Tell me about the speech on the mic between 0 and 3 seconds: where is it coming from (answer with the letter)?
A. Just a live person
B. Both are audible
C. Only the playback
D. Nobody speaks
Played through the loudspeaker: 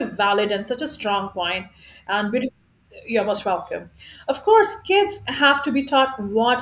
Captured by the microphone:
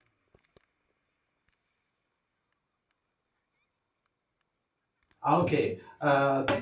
D